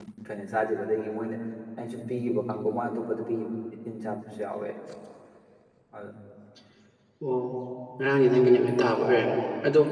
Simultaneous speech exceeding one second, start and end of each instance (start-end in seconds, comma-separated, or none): none